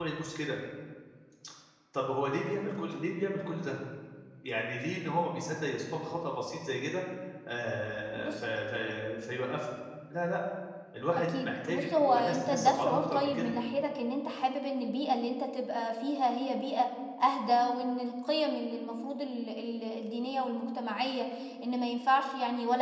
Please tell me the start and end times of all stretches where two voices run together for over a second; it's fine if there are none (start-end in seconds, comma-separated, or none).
11.3-13.5